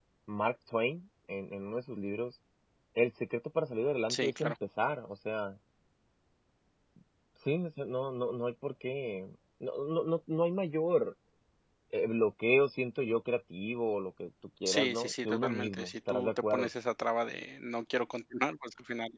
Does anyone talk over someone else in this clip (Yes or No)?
Yes